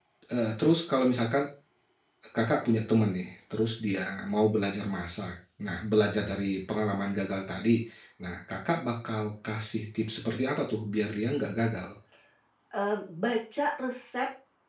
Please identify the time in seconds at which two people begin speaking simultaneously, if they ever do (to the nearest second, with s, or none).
none